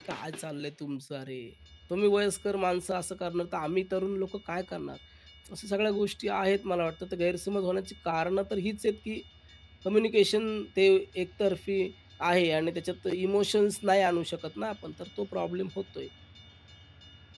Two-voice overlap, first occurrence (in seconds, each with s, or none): none